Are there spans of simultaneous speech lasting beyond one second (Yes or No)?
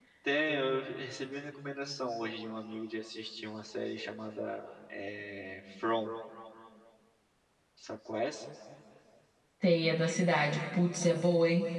No